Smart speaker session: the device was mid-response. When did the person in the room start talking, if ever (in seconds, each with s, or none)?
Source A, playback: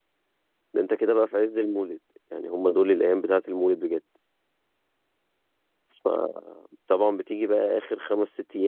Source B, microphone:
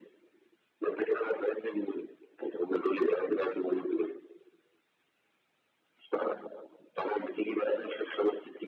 none